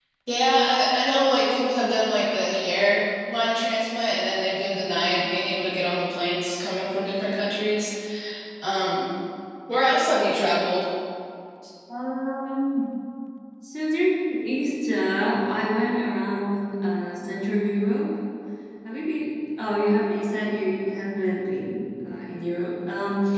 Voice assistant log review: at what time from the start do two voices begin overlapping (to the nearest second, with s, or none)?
none